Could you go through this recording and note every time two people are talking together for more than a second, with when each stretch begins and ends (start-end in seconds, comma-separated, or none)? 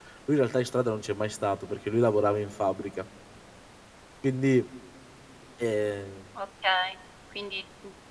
none